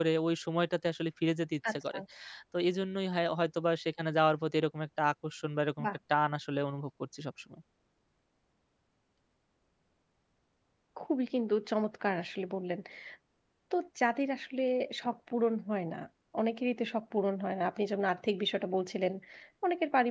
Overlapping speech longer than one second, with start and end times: none

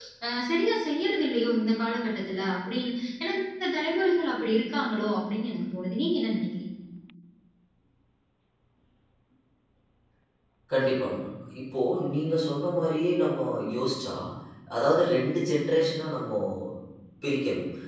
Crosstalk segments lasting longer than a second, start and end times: none

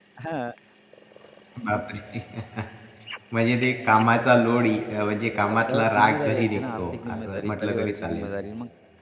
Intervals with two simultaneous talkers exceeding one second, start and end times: 5.5-8.3

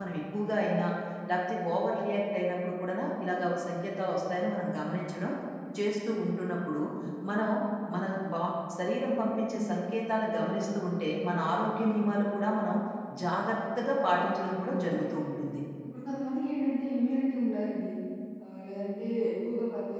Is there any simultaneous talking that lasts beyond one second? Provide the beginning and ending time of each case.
14.2-15.4

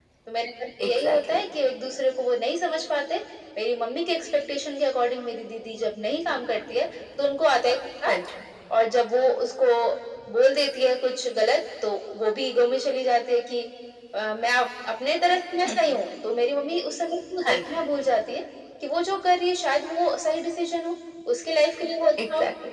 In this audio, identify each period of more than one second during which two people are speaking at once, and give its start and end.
none

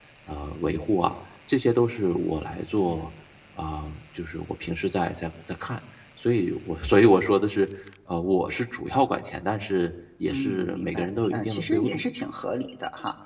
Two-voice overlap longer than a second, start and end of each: 10.3-12.0

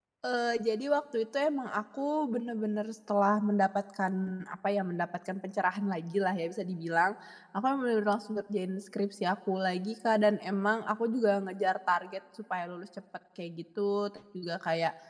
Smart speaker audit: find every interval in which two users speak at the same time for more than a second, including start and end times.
none

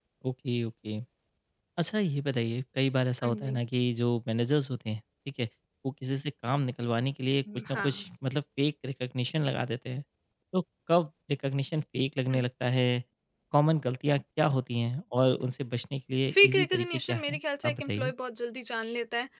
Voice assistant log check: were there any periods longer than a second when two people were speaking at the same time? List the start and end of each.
16.3-18.1

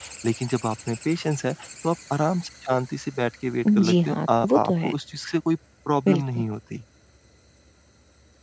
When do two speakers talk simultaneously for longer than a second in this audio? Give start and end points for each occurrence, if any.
3.6-4.9

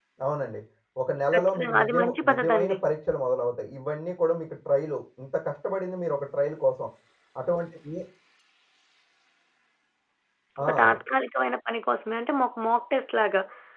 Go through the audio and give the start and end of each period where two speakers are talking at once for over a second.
1.3-2.8

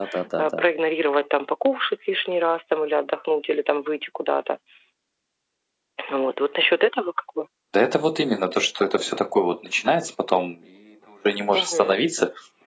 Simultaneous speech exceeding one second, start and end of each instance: none

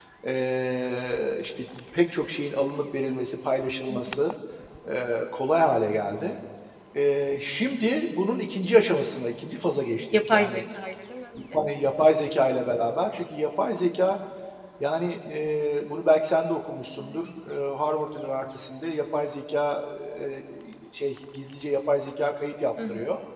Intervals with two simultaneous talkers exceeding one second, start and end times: none

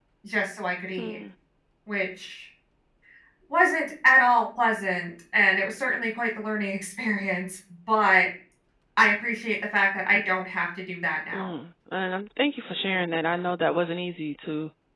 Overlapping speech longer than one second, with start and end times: none

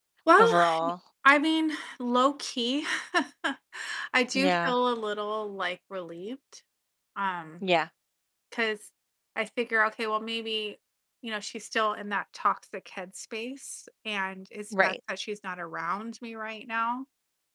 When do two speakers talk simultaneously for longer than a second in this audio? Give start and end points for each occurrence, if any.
none

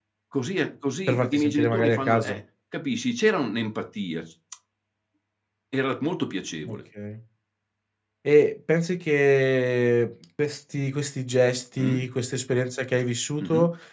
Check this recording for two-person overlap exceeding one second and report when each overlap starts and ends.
1.1-2.4

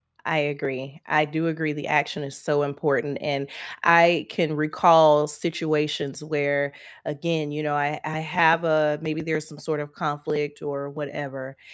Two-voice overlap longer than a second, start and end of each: none

